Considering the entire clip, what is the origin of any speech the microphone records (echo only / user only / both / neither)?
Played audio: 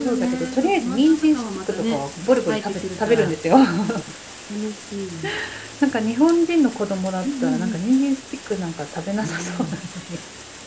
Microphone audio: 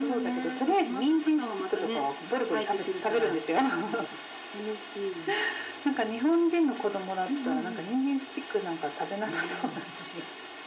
echo only